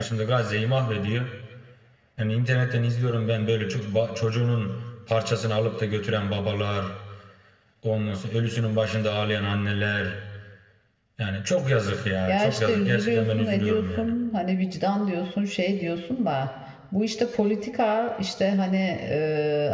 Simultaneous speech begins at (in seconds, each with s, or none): 12.3 s